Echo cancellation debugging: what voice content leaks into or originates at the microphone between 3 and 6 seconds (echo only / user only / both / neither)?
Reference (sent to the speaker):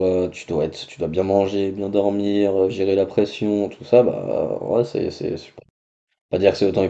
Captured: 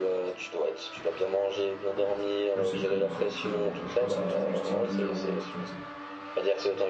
both